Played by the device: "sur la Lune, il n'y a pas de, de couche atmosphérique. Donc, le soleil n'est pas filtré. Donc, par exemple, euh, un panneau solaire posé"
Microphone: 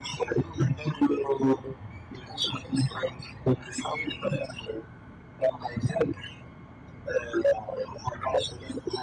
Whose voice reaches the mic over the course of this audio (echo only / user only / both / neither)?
echo only